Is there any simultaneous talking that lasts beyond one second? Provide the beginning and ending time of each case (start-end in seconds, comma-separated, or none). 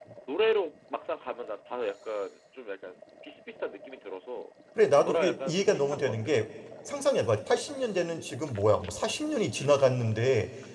5.0-6.3